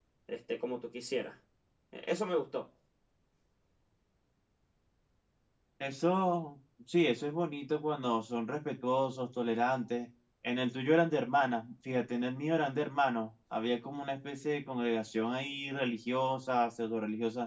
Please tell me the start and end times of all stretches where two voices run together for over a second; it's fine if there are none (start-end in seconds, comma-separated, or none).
none